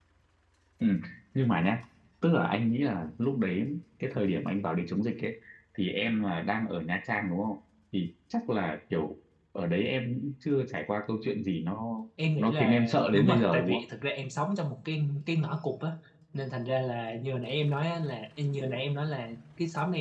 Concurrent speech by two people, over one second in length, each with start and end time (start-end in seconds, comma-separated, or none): 12.4-13.8